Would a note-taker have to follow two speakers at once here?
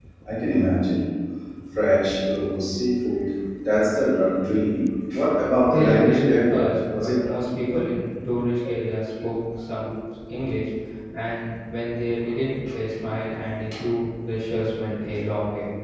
Yes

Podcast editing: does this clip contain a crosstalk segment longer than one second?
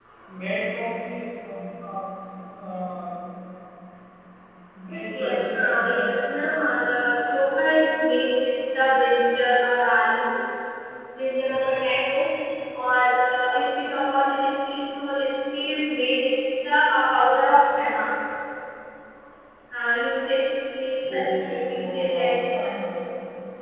Yes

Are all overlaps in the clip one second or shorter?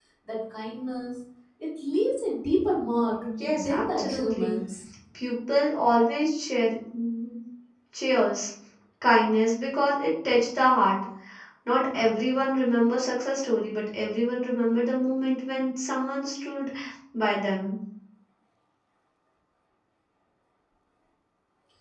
No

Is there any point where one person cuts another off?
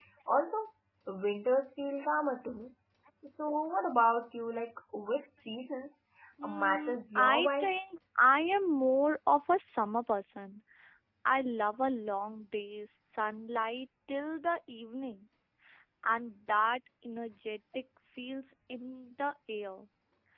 Yes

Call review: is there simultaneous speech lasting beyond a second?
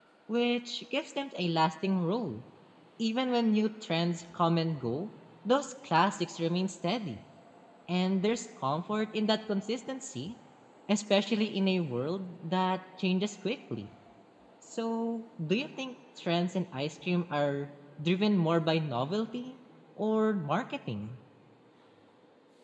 No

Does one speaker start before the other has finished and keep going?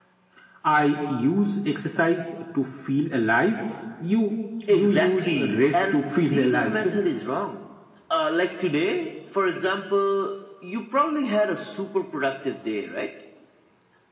Yes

